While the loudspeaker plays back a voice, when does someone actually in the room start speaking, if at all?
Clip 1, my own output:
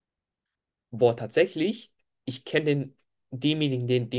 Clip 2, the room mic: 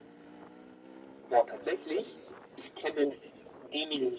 none

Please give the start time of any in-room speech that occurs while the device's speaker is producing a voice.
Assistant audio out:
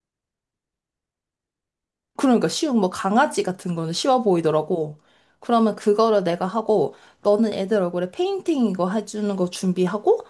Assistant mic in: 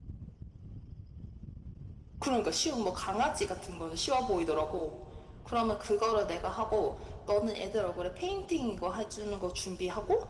none

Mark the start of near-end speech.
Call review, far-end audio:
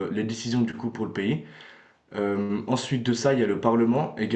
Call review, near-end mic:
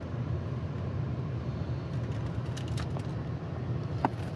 none

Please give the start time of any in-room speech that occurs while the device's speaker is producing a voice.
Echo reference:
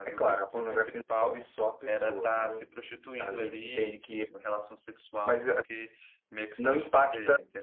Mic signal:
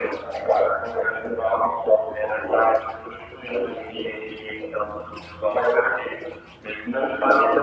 none

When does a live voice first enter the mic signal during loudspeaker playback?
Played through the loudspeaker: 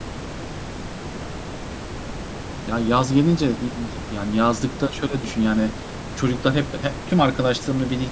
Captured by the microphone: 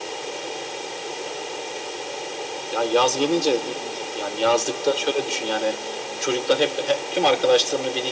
none

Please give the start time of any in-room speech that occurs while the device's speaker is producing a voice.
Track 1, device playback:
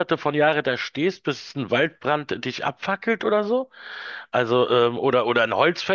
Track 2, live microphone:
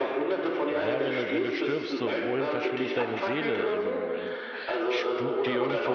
1 s

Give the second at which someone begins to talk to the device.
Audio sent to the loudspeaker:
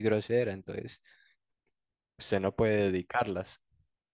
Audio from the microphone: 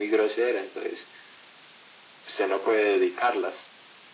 none

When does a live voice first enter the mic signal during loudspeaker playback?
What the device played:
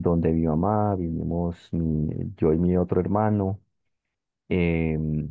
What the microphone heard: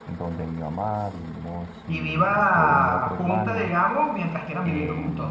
2 s

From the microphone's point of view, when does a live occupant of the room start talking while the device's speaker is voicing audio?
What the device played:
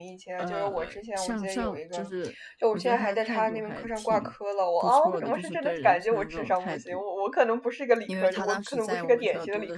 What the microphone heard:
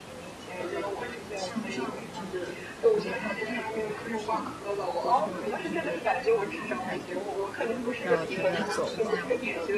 8 s

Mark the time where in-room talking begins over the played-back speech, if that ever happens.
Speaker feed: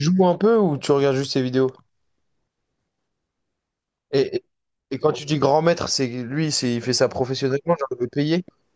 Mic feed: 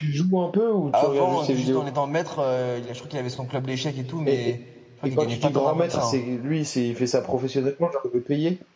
1 s

